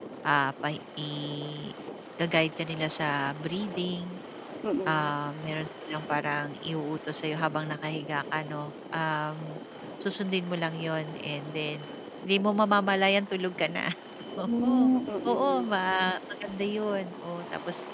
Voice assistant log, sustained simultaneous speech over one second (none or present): none